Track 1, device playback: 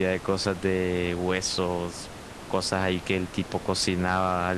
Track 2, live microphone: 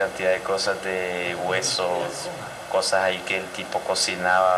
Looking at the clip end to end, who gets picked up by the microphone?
both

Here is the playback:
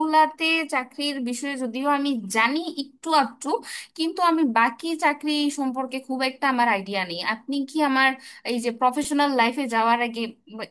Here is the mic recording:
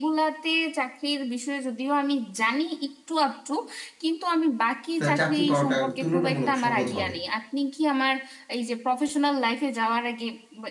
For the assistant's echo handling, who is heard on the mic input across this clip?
both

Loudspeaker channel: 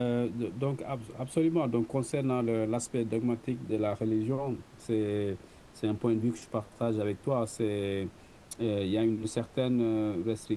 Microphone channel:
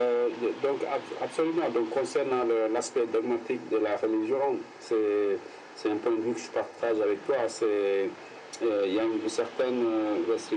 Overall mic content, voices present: echo only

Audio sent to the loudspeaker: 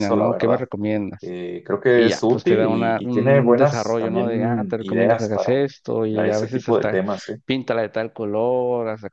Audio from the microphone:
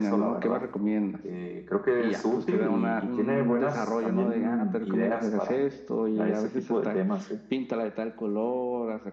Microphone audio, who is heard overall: echo only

